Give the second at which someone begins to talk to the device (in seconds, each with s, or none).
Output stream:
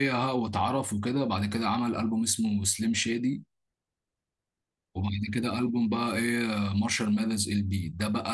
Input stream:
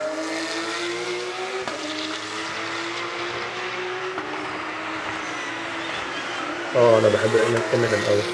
6.8 s